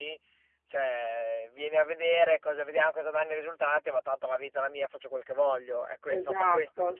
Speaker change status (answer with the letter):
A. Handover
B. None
A